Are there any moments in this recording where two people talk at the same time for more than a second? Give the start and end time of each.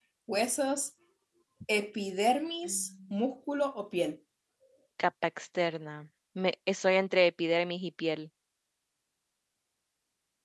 none

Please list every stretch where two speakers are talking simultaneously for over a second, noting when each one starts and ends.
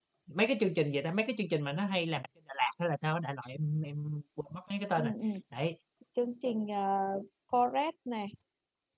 none

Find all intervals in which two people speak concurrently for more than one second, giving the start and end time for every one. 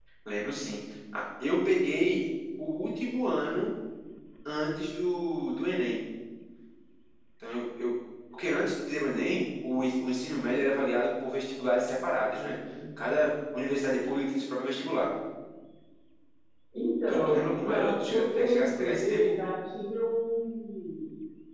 17.1-19.3

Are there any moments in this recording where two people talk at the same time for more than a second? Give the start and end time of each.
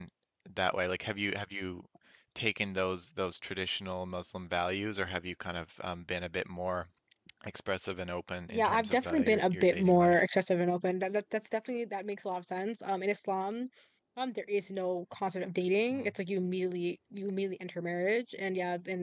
8.5-10.2

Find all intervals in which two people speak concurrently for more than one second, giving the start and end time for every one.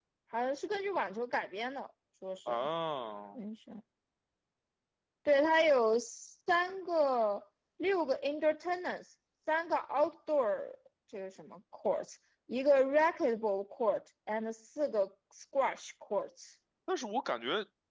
none

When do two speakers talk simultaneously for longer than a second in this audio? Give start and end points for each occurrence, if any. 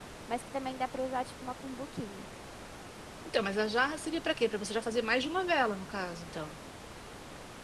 none

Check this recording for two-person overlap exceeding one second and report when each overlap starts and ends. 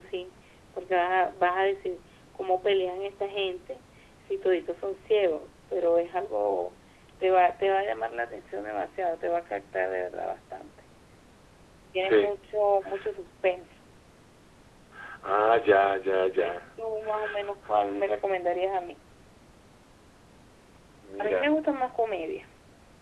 none

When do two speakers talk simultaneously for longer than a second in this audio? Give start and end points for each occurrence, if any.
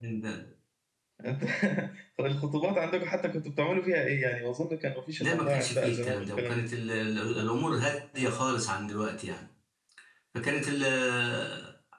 5.2-6.5

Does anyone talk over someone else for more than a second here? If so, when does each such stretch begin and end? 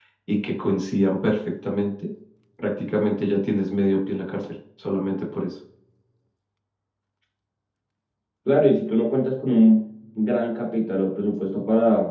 none

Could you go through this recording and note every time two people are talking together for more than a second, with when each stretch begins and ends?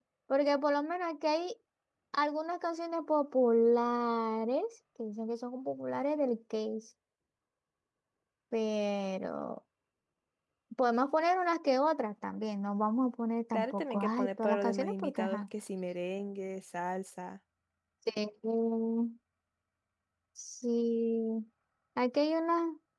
13.5-15.4

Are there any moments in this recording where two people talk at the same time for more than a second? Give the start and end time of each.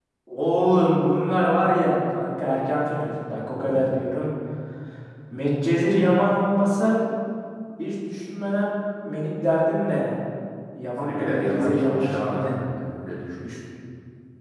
11.0-12.5

